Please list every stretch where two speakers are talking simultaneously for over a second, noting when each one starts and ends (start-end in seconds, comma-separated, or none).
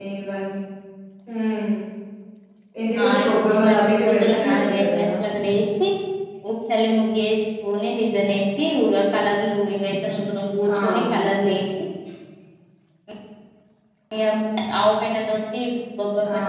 3.0-5.1